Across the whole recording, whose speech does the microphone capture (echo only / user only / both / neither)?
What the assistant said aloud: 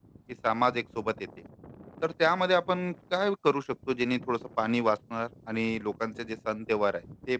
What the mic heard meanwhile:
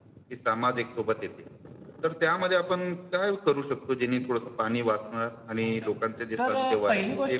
both